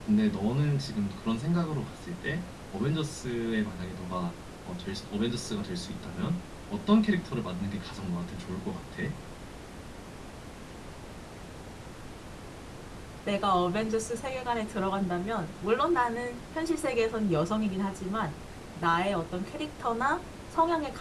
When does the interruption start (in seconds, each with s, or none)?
none